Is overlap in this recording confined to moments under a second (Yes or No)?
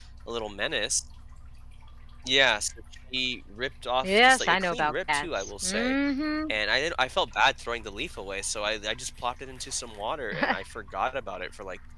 No